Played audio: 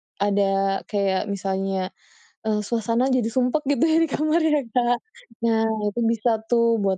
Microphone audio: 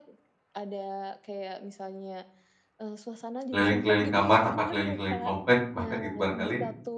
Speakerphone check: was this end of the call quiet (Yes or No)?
No